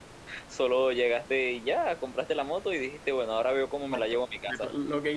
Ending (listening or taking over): taking over